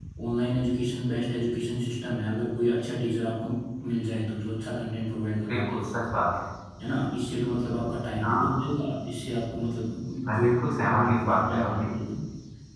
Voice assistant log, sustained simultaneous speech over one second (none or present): present